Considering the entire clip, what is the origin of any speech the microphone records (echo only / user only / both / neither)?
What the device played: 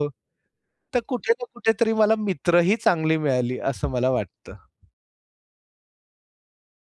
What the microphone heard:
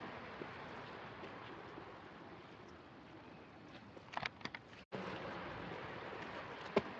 neither